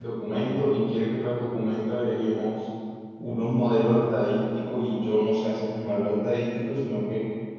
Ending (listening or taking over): listening